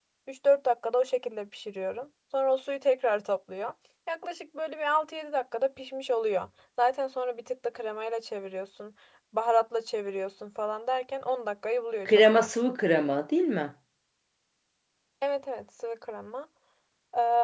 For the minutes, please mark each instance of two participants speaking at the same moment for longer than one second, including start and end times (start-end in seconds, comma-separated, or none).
none